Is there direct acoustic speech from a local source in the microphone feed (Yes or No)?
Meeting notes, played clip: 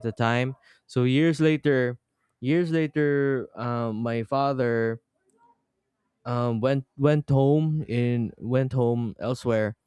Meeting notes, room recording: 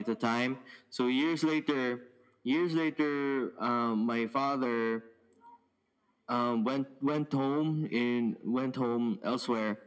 No